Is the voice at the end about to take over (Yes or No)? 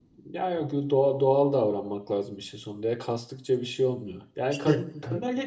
No